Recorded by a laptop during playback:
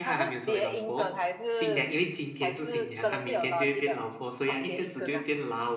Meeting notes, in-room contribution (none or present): present